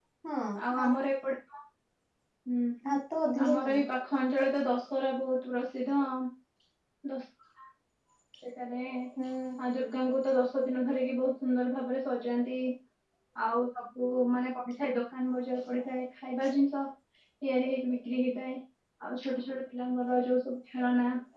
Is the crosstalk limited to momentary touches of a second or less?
Yes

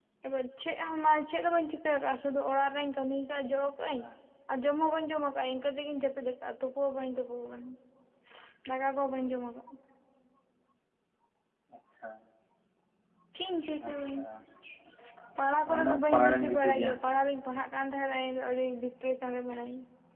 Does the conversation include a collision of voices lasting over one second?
Yes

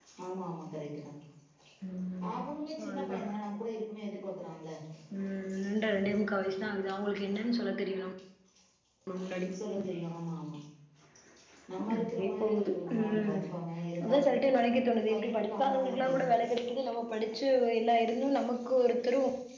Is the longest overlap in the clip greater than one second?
Yes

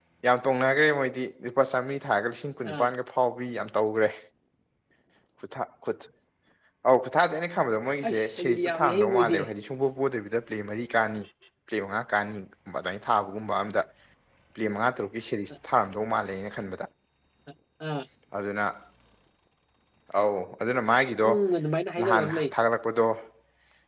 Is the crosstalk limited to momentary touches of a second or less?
No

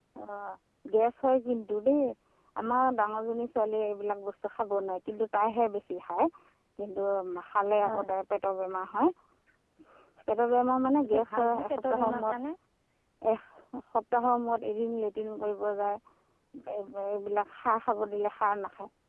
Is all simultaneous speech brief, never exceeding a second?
No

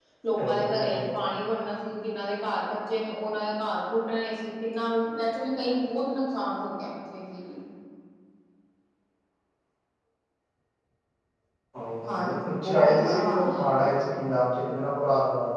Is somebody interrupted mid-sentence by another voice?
Yes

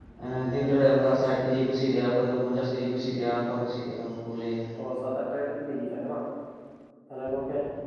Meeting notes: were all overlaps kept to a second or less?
Yes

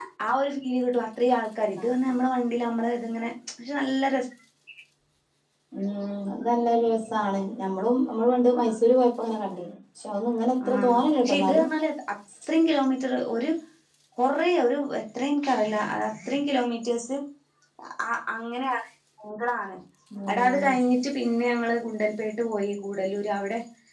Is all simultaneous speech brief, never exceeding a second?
Yes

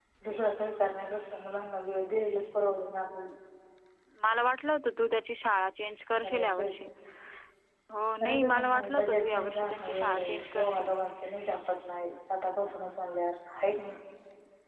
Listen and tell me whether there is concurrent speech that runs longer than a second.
Yes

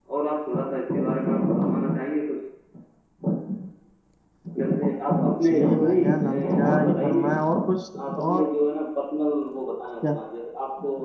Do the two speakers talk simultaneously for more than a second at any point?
Yes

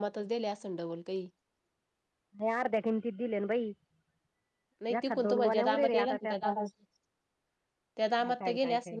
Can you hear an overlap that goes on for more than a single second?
Yes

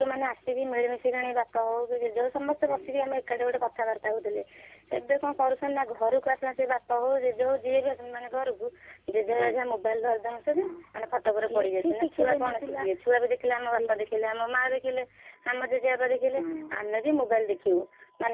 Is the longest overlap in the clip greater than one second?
Yes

